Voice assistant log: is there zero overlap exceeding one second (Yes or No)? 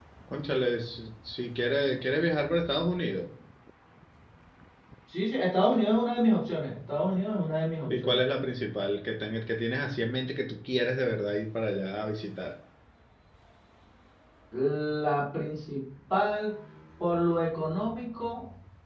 Yes